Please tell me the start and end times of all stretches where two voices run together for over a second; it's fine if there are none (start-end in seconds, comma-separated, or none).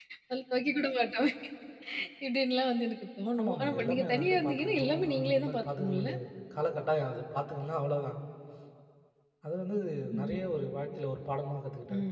3.4-6.1